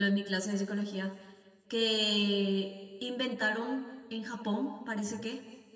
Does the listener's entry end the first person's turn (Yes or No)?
No